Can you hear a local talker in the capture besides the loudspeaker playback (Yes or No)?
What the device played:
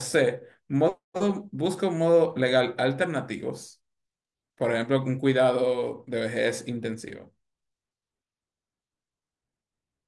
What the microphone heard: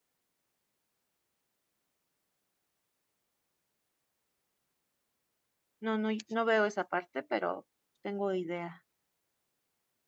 Yes